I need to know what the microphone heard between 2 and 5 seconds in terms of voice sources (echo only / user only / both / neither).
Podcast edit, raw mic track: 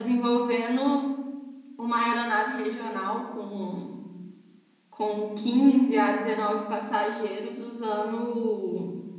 user only